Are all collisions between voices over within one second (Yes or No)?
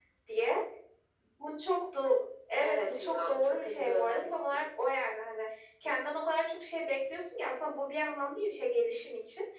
No